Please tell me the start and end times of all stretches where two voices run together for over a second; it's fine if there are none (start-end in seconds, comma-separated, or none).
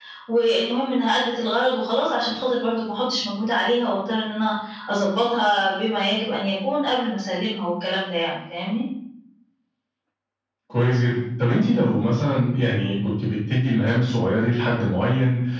none